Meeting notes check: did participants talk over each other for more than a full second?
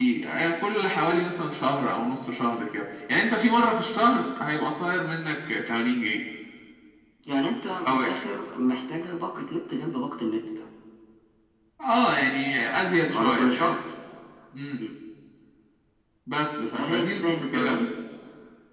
Yes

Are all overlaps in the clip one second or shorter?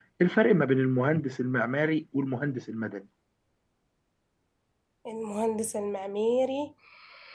Yes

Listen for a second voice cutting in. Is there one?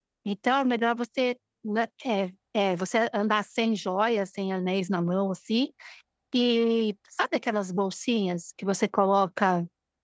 No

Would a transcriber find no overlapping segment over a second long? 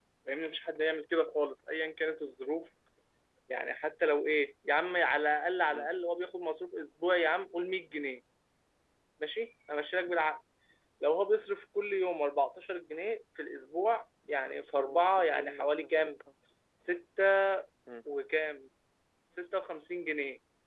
No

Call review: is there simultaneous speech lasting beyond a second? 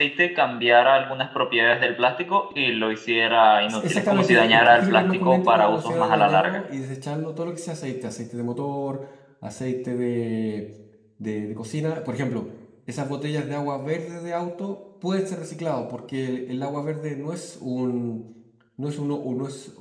Yes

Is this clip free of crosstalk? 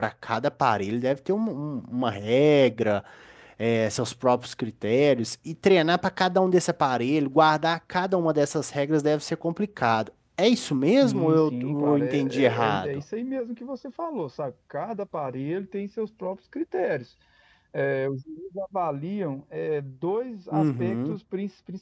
No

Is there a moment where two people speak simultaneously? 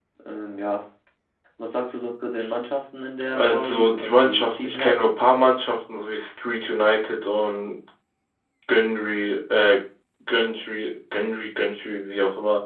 Yes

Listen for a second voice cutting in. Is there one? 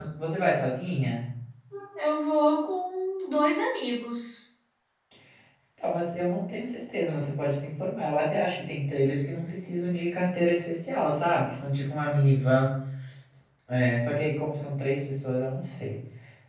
No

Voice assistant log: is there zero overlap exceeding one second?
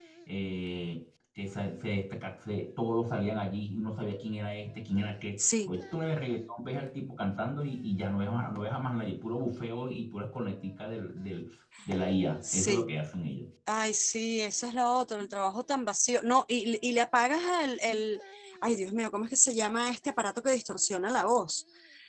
Yes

